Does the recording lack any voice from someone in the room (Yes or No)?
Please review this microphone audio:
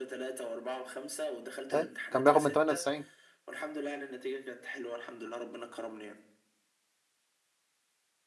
No